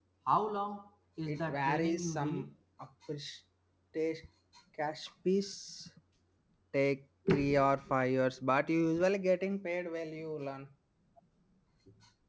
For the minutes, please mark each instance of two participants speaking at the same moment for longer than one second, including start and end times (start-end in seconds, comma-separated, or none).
1.3-2.5